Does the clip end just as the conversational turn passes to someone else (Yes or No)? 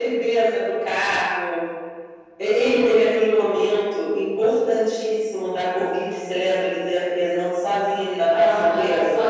Yes